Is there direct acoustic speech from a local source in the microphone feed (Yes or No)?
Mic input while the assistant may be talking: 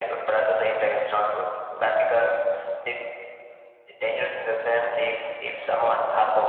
No